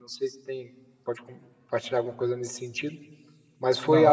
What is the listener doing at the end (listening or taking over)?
listening